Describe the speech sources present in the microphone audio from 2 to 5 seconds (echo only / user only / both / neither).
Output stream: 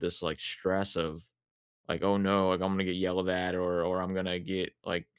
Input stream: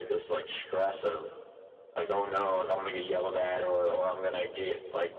echo only